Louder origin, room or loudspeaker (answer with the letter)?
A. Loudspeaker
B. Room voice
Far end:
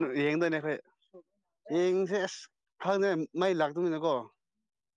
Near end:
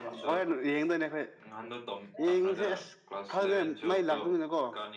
A